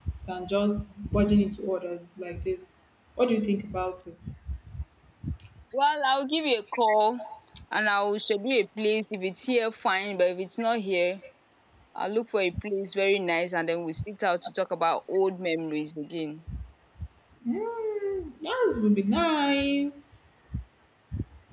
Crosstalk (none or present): none